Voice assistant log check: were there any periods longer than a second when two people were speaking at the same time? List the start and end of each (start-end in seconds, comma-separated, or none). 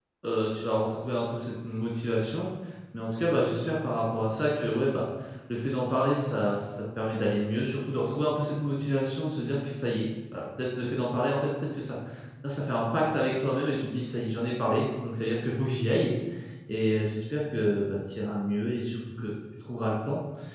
none